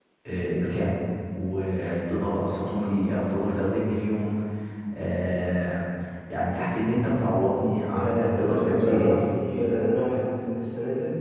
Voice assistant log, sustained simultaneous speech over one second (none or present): present